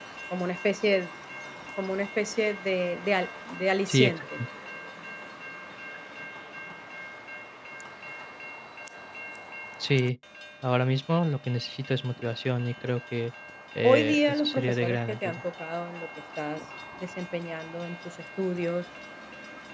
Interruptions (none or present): present